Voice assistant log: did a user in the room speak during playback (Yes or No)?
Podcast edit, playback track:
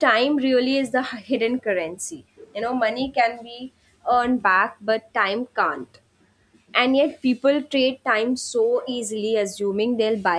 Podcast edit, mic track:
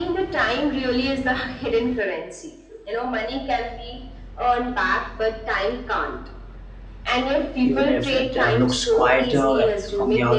Yes